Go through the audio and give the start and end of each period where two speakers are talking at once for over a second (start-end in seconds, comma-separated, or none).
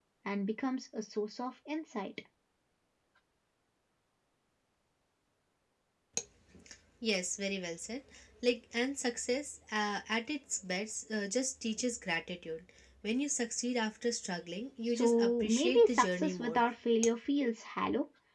14.9-16.6